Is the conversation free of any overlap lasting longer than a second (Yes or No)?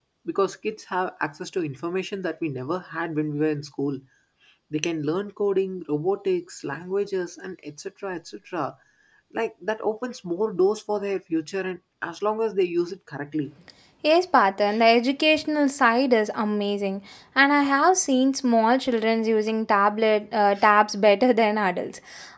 Yes